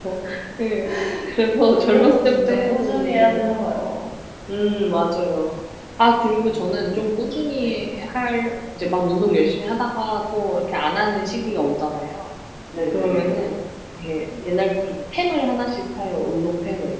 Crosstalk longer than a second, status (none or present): present